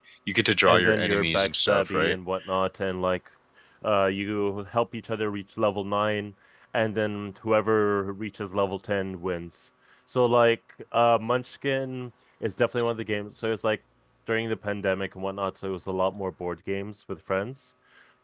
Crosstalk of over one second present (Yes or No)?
Yes